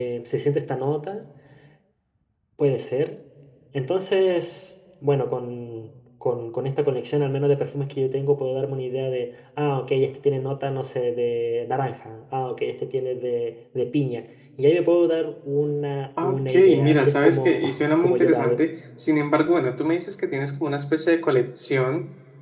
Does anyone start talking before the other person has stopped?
Yes, from 16.2 s

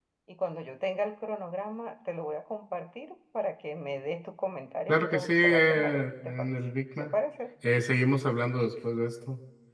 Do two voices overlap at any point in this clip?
Yes, from 4.9 s

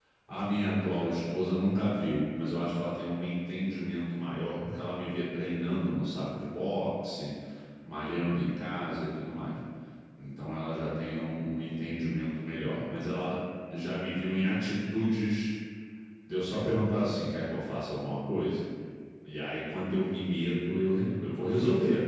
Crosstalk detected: No

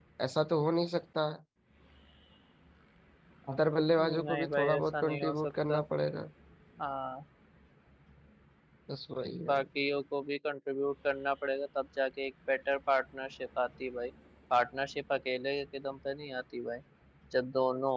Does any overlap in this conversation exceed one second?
Yes, from 4.0 s

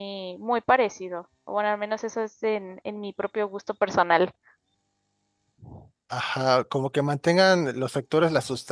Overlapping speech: No

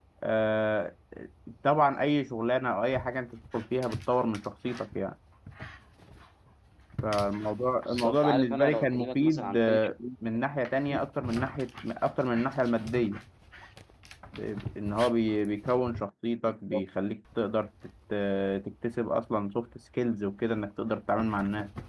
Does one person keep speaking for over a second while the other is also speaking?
Yes, from 7.8 s

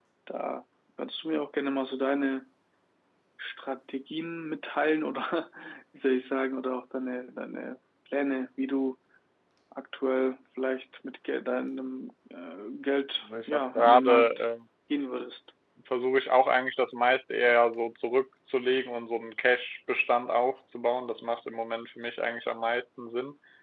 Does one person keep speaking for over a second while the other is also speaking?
Yes, from 13.2 s

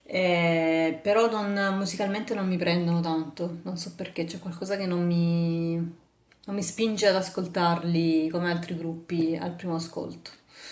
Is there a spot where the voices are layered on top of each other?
No

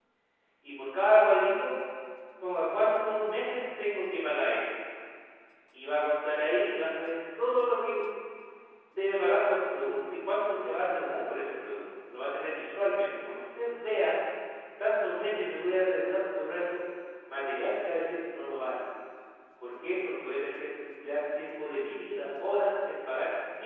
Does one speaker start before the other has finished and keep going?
No

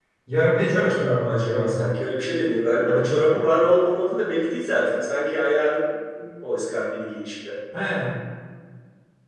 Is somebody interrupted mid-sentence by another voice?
Yes, from 0.6 s

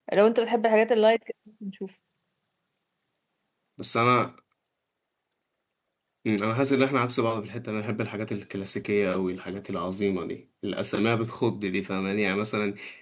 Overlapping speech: No

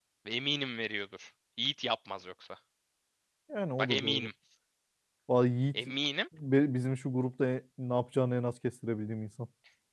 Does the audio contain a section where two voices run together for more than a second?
No

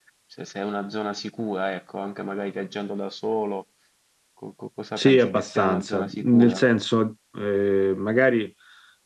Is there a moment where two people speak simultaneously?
Yes, from 5.0 s

